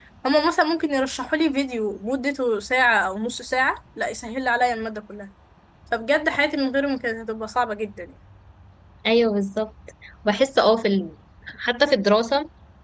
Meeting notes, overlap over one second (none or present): none